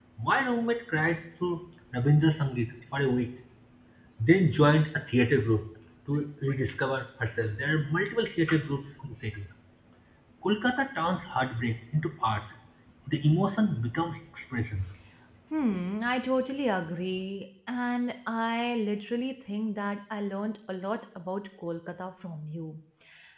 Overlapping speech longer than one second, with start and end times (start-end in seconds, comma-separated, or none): none